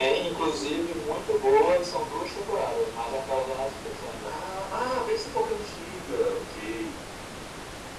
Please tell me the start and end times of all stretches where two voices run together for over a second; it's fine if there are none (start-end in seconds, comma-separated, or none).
none